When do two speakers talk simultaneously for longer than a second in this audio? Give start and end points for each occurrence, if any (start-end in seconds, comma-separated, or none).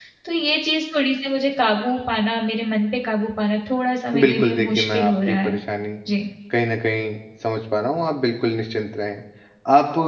4.2-5.6